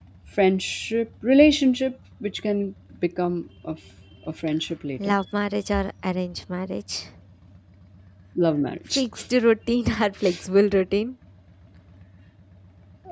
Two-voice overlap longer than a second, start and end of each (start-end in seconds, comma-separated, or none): none